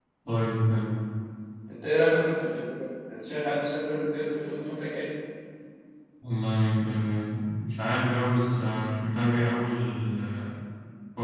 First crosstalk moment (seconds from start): none

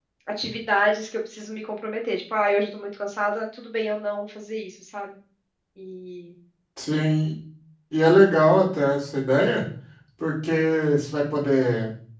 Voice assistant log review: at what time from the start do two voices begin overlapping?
none

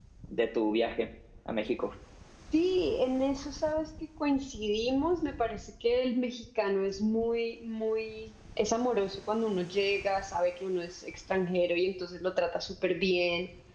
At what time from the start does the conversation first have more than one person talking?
none

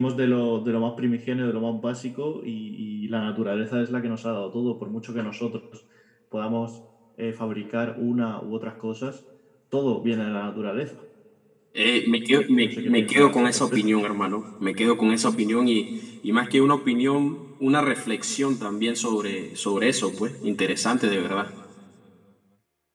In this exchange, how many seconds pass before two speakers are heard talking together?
12.6 s

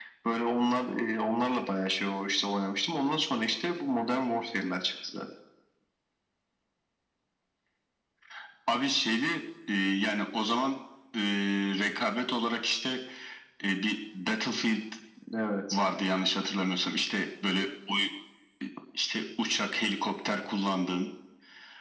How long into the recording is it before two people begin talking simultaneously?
none

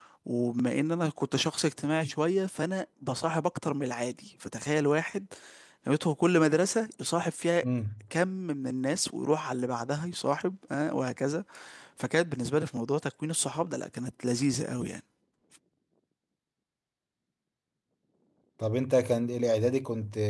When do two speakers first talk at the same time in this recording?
none

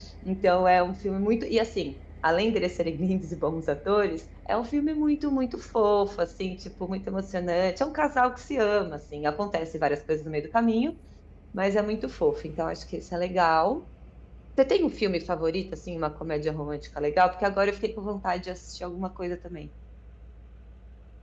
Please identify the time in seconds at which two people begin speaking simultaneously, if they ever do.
none

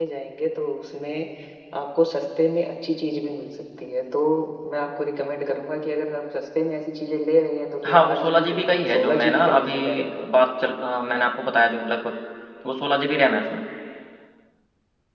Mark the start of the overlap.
7.8 s

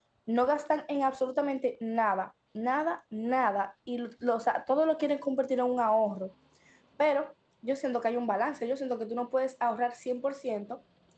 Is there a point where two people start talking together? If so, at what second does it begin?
none

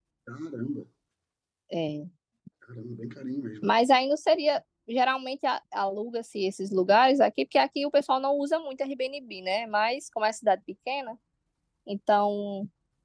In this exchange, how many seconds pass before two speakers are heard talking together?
none

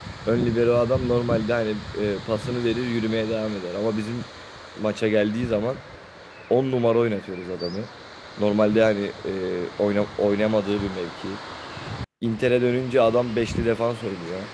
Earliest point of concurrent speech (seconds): none

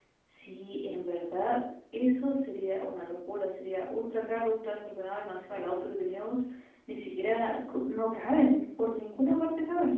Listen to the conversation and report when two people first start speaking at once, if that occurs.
none

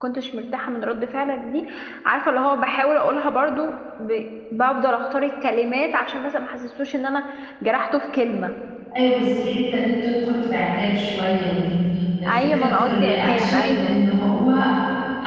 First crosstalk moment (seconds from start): 12.3 s

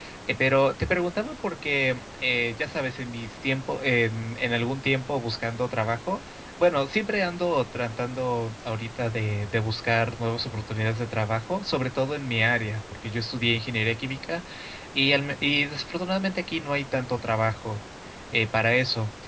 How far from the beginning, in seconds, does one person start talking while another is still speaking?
none

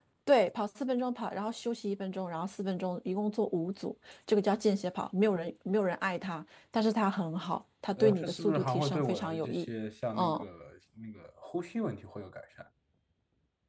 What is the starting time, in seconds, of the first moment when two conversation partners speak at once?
8.0 s

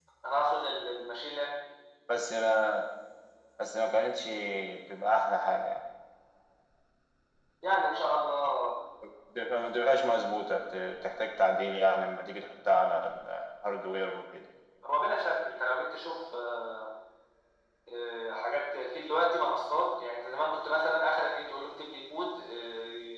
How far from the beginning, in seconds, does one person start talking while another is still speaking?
none

